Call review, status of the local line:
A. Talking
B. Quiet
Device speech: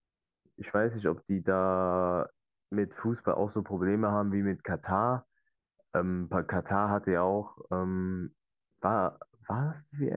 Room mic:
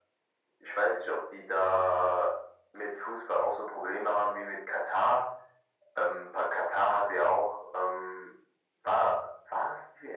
B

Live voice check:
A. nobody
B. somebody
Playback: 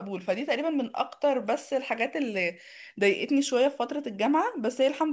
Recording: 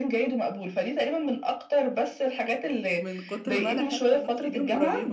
B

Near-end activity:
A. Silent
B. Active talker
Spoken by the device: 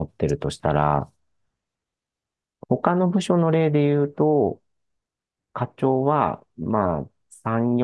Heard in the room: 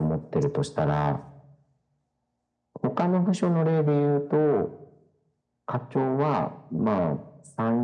A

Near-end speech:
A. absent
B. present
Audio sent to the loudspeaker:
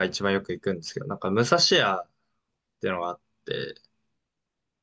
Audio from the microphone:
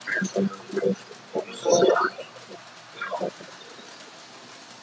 A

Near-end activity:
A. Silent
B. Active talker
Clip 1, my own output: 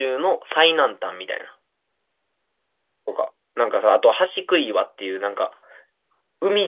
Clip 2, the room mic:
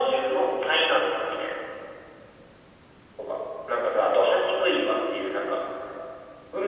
A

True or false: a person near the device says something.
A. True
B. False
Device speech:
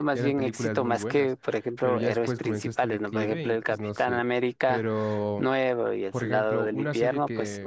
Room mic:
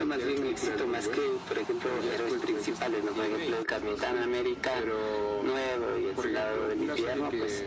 B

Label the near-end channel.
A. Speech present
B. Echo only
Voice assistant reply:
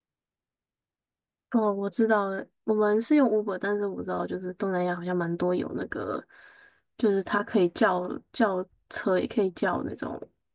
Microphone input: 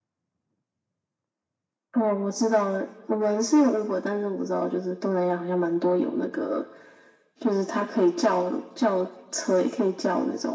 B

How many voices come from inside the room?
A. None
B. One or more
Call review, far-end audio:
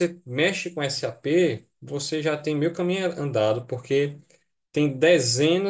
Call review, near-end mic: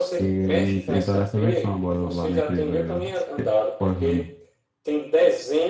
B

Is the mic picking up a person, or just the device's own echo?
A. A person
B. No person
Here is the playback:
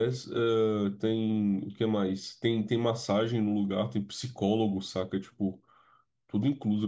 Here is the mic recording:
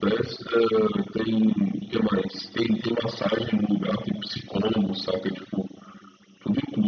B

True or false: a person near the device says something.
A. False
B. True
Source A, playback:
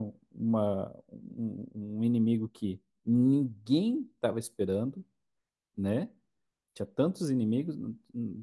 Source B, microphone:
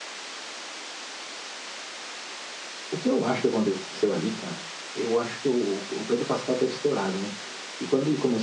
B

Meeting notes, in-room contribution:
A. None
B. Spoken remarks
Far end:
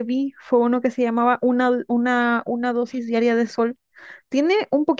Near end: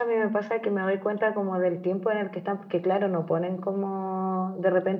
B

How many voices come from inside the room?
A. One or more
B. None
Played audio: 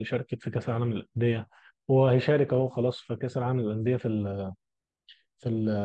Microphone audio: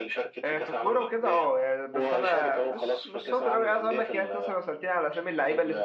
A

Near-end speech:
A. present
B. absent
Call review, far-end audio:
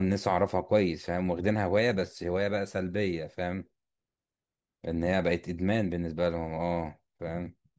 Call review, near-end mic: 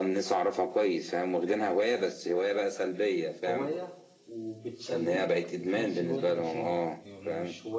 A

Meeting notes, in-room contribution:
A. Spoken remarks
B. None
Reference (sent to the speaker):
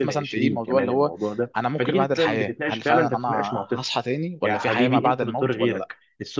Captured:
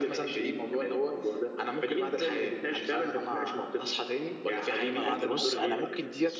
A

